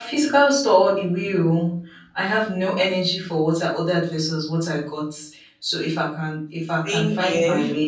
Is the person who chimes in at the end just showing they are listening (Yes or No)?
Yes